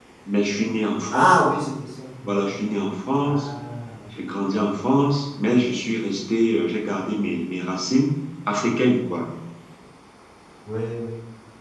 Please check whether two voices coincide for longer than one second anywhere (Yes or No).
No